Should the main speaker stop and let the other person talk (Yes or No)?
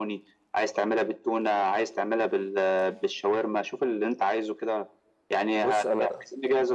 No